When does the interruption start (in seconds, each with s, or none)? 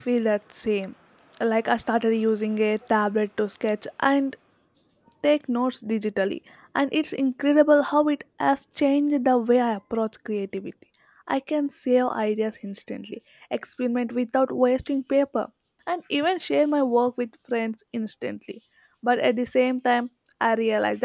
none